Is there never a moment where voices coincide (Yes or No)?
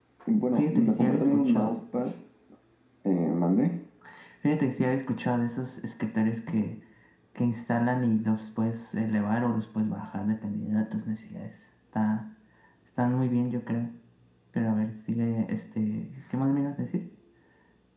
No